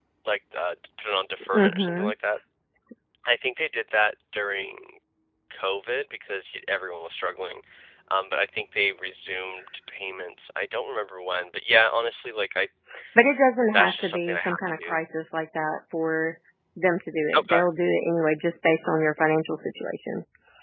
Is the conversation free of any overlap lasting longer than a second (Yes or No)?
No